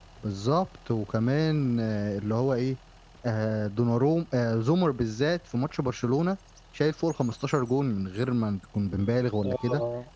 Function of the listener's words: listening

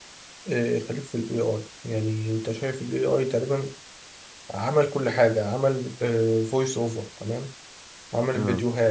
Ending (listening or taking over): listening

